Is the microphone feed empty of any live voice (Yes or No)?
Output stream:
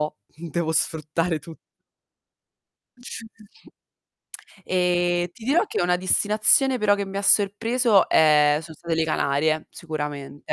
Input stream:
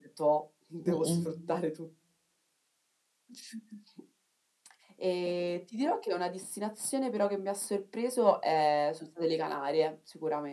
No